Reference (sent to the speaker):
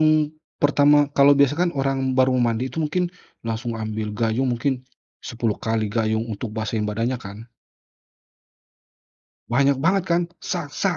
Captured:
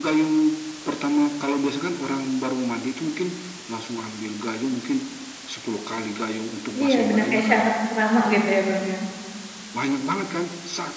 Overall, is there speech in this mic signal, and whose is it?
both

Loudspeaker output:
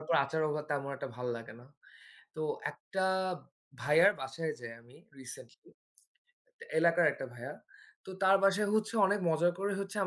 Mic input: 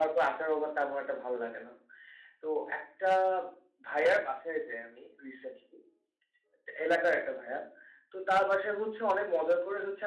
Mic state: echo only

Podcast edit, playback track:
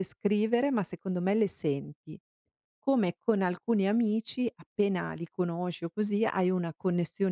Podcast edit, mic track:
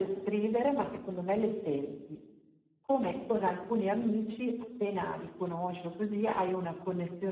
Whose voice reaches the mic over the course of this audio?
echo only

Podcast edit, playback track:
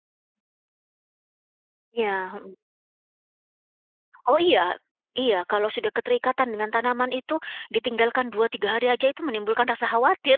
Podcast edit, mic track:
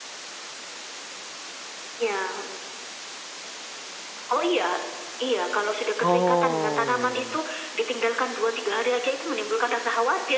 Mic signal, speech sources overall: both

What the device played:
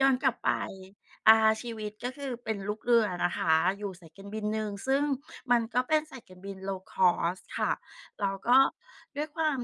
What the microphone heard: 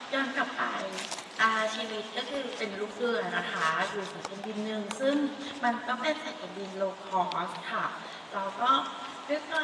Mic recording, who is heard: echo only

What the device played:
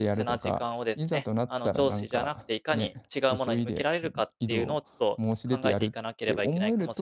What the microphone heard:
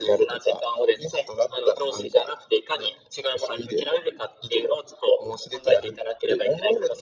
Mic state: echo only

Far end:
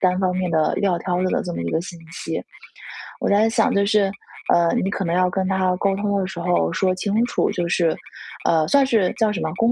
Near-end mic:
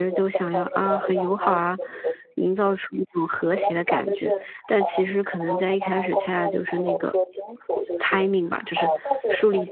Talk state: both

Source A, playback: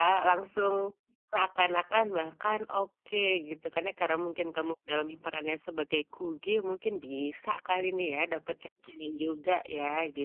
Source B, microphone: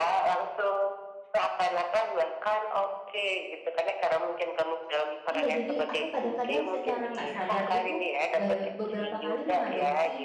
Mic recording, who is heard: both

